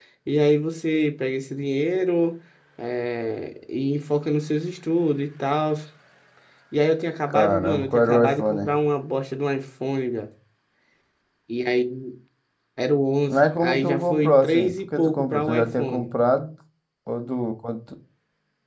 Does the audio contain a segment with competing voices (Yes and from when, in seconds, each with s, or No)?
Yes, from 7.3 s